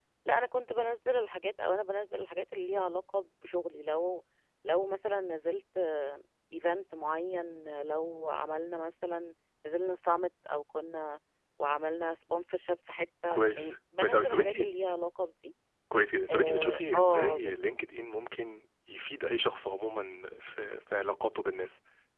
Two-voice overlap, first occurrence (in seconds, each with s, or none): 13.3 s